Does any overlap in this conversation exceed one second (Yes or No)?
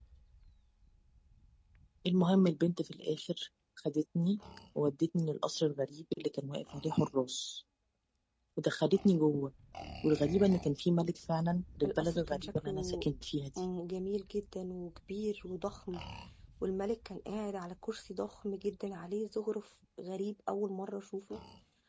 Yes